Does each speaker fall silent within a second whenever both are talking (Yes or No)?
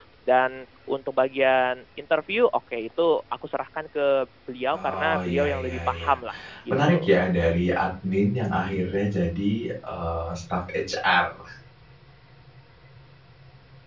No